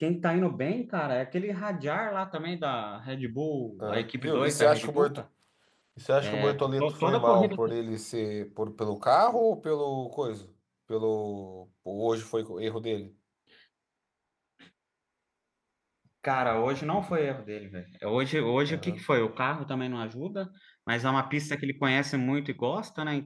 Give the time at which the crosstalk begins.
4 s

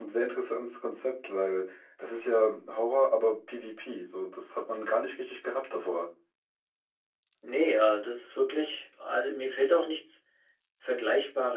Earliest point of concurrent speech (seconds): none

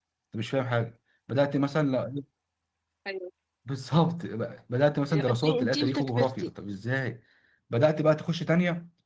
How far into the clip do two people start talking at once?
5 s

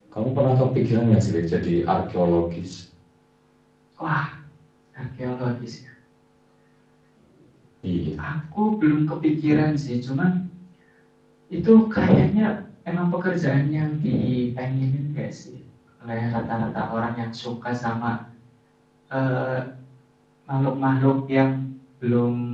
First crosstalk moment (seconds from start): none

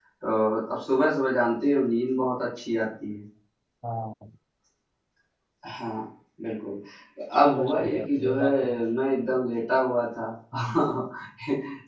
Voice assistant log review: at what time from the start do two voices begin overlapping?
7 s

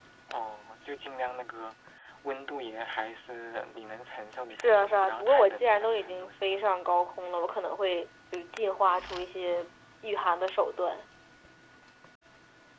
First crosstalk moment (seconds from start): 5 s

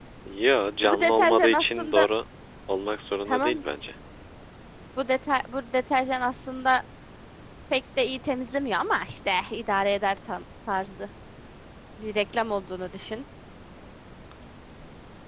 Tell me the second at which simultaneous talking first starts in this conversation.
1 s

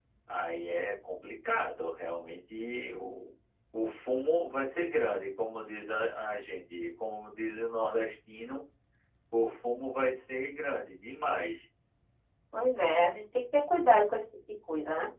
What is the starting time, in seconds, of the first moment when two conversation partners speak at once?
none

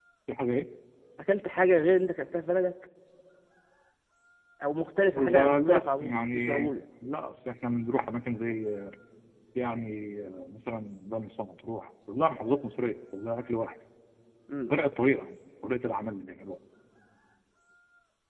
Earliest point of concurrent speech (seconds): 5 s

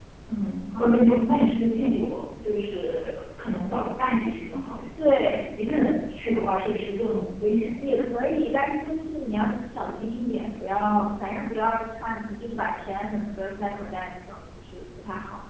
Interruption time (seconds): none

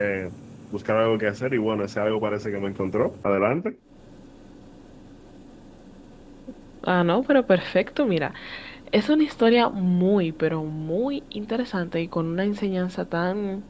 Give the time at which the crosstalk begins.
none

